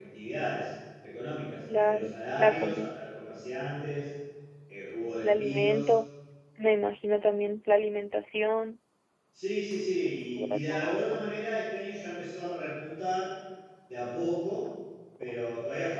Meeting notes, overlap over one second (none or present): present